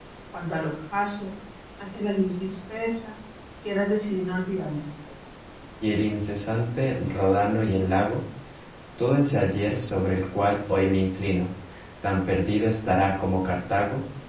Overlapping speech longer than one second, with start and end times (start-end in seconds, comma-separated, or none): none